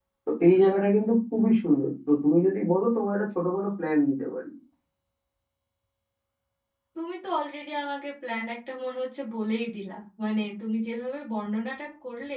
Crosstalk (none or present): none